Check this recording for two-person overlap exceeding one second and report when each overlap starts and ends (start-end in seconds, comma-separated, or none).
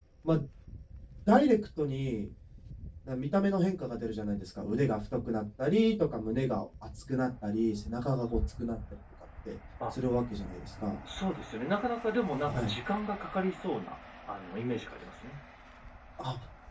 none